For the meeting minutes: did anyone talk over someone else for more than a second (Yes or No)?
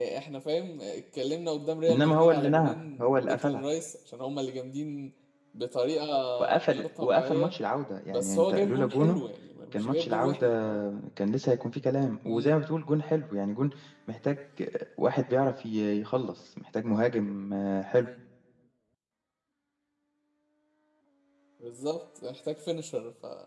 Yes